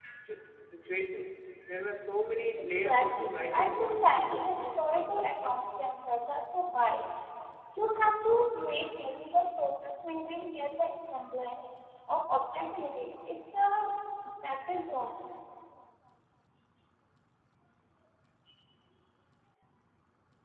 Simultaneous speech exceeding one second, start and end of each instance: 2.8-4.6

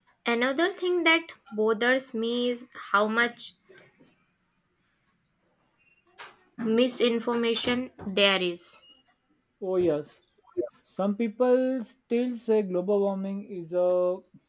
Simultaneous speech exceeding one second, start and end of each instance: none

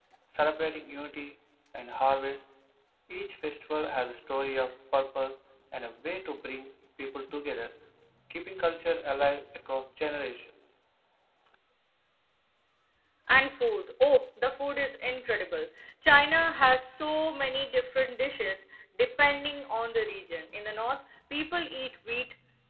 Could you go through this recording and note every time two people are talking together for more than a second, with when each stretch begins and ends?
none

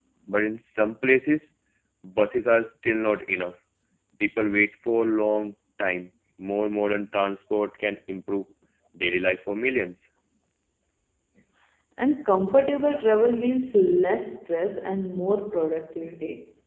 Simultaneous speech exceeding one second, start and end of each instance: none

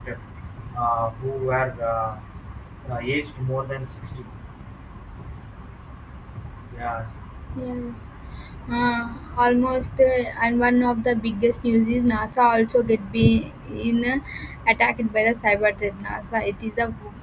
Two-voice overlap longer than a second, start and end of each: none

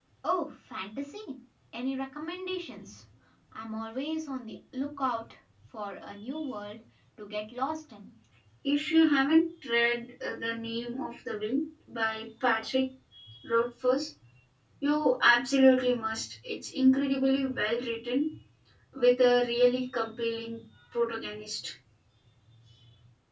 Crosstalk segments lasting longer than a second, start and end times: none

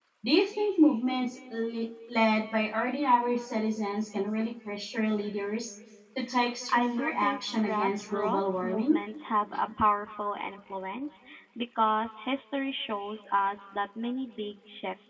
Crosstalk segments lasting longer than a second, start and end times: 6.7-9.0

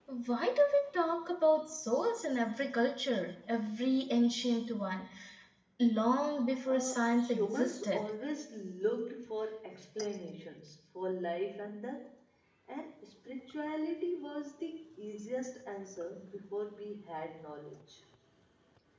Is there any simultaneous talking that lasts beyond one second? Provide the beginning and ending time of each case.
6.7-8.0

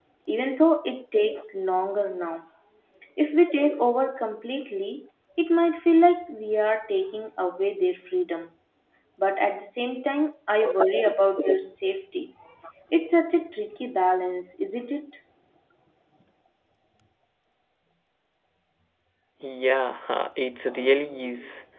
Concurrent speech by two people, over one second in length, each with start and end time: none

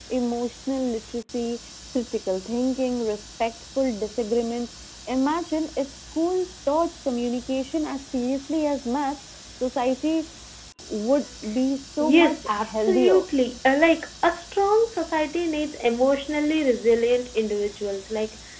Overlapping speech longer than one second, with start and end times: 12.0-13.2

